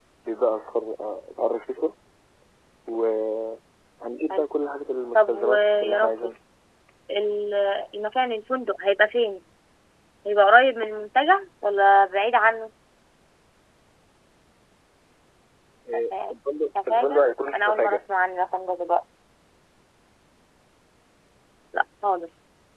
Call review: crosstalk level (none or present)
present